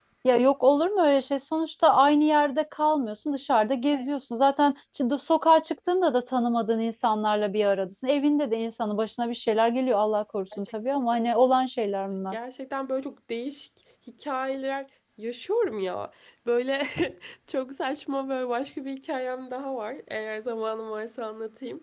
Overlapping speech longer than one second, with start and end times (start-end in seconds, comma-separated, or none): none